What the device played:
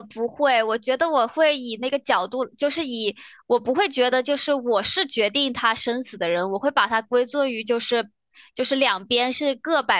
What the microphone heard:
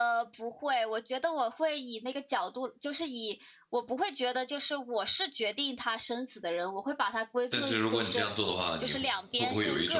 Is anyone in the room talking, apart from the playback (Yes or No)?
Yes